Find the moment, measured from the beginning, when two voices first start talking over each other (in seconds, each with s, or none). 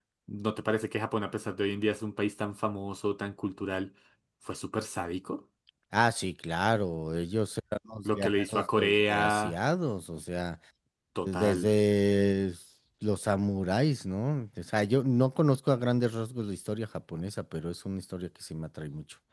8.1 s